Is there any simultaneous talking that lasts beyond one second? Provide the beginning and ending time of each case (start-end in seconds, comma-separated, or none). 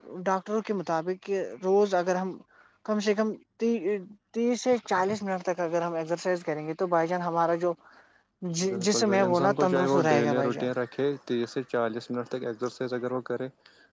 8.7-10.7